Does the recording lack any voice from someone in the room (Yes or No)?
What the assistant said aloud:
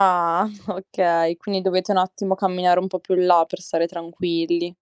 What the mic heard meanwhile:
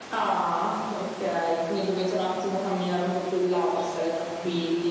Yes